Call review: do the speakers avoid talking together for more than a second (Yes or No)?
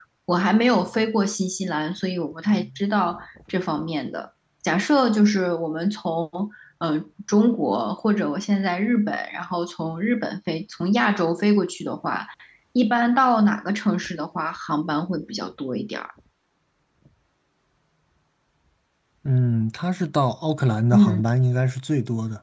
Yes